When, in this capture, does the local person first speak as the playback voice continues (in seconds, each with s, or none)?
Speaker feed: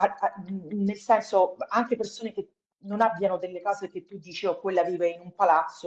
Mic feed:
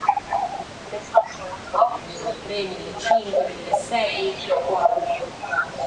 1.8 s